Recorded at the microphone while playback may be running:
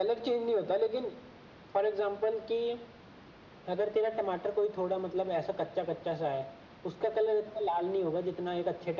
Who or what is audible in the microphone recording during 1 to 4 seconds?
echo only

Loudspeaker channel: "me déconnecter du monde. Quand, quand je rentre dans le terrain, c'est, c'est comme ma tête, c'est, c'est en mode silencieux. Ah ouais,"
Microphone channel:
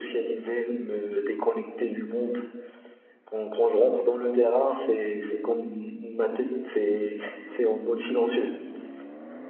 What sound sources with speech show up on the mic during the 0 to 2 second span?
echo only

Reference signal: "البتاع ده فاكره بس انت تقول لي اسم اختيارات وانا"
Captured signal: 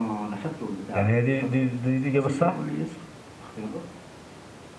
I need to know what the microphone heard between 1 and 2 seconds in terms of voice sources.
both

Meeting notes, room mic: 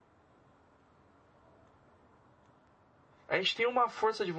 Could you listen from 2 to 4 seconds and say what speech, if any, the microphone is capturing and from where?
user only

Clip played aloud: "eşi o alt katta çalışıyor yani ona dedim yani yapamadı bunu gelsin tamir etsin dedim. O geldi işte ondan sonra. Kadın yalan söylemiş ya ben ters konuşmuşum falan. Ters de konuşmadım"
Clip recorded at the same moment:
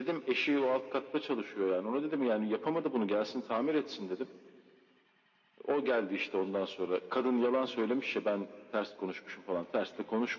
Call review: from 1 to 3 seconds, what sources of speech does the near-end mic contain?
echo only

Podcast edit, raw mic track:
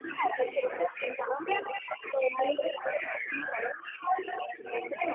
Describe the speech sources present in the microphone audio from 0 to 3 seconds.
echo only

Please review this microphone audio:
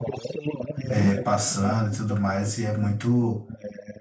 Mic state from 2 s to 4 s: both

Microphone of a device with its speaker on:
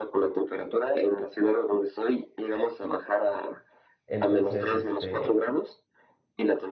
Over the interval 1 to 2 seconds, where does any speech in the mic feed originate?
echo only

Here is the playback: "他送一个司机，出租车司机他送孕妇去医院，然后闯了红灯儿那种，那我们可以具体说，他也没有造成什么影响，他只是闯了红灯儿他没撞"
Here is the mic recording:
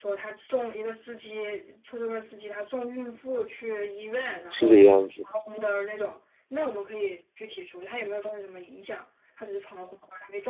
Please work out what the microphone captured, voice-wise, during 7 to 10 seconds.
echo only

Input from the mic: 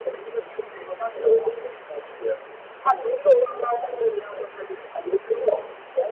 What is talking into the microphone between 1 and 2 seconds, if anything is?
echo only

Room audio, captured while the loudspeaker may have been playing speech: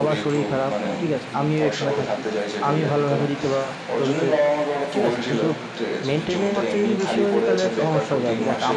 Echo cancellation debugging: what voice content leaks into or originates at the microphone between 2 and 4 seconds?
both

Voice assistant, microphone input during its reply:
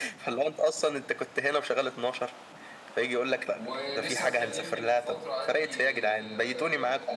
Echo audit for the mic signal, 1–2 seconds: echo only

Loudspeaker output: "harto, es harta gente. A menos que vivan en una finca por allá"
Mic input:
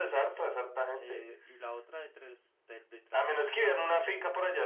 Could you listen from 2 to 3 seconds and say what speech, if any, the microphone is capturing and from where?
user only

